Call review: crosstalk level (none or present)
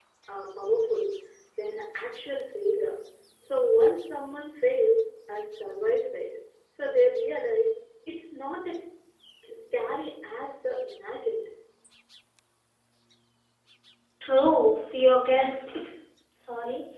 none